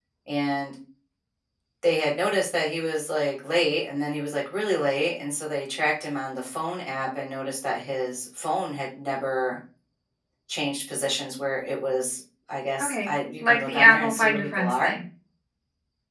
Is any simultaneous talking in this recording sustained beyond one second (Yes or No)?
Yes